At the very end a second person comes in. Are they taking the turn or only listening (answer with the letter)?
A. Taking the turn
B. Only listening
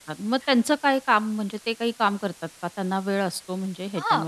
A